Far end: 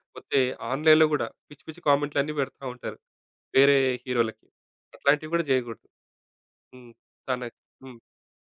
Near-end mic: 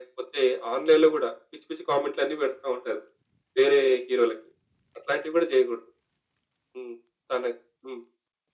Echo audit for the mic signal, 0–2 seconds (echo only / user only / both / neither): echo only